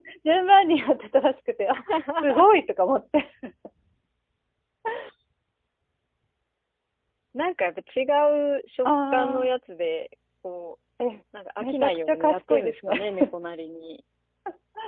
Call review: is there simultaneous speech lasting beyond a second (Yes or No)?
Yes